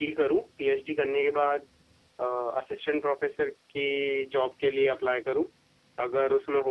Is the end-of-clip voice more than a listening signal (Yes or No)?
No